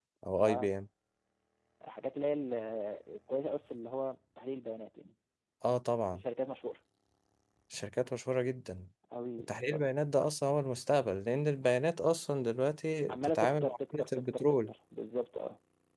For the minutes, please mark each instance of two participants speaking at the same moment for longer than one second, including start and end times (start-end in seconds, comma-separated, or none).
13.1-14.7